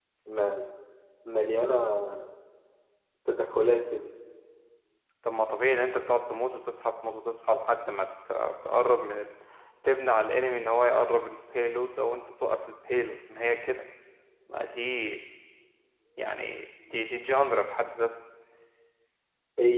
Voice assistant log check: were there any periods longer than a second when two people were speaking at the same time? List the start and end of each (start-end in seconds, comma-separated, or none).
none